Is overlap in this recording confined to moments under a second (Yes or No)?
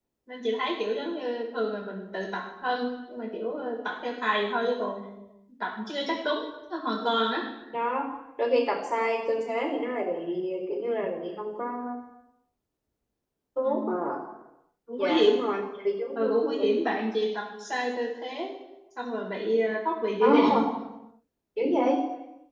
Yes